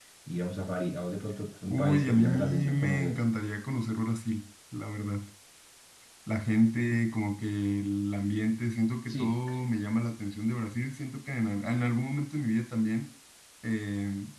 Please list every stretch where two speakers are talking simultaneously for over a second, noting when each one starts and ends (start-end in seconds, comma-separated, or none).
1.6-3.2